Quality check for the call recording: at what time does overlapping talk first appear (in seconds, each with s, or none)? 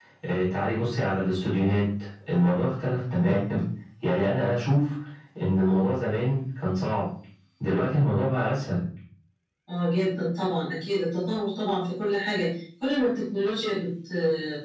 none